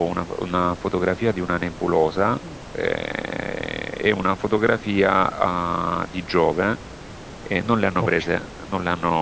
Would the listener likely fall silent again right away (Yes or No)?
Yes